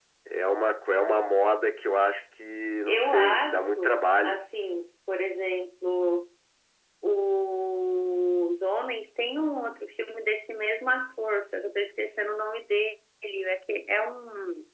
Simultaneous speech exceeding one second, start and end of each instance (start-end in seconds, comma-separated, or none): 2.9-4.4